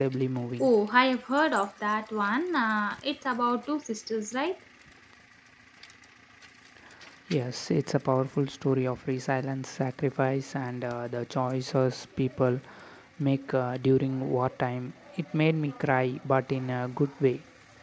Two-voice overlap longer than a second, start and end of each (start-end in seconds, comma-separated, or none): none